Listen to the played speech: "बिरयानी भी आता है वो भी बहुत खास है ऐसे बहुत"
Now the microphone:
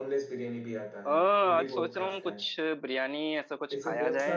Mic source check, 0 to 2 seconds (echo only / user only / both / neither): both